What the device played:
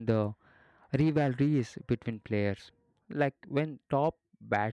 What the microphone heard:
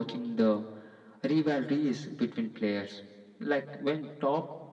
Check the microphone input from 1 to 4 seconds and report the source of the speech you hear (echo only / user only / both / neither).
echo only